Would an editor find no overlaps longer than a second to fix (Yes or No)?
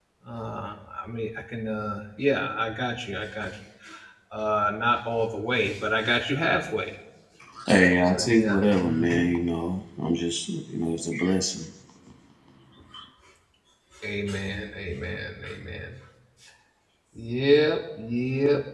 No